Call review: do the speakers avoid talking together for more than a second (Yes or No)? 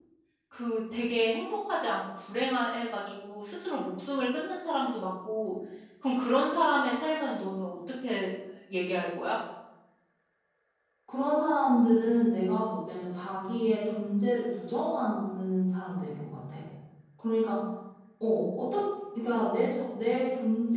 Yes